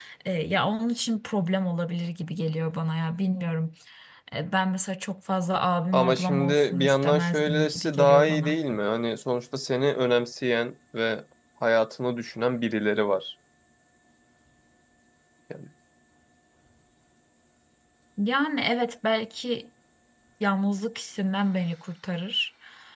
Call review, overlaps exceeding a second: present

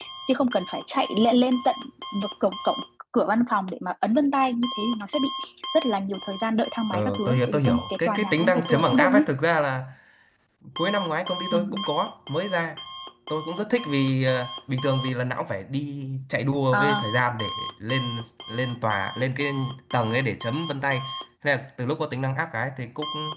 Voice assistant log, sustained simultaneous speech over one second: present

